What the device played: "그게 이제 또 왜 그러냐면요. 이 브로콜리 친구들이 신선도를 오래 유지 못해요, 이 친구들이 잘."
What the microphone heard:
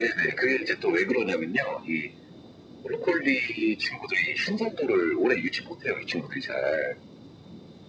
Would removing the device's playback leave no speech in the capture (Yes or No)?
Yes